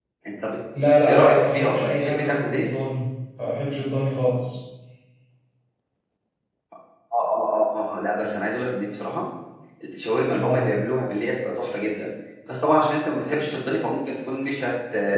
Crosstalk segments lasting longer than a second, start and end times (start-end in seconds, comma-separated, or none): 1.1-2.7